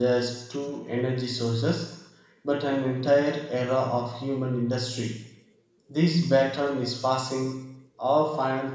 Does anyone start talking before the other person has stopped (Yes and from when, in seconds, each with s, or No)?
No